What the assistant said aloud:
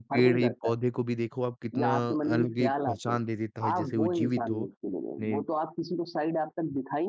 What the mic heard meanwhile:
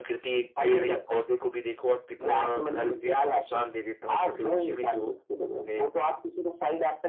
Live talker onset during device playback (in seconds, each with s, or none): none